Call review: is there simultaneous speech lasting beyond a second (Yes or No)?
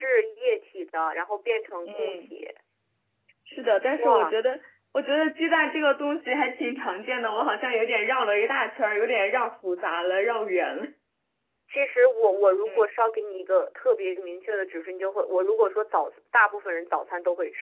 No